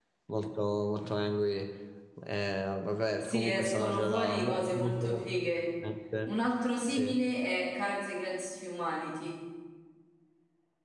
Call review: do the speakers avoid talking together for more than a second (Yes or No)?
No